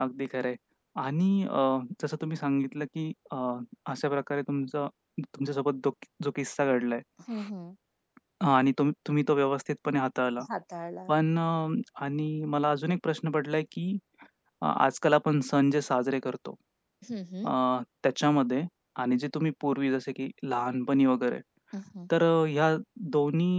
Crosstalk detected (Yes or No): No